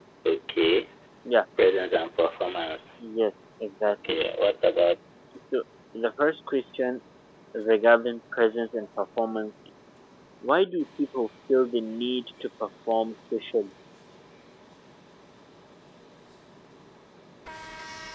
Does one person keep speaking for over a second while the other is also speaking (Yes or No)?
No